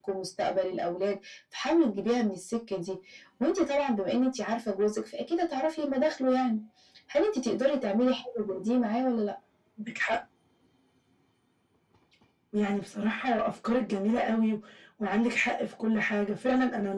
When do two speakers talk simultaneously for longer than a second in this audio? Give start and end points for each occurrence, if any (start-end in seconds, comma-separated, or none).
none